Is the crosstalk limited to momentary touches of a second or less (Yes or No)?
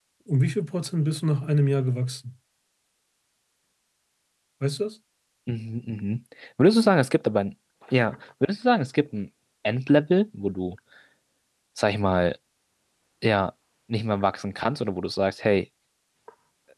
Yes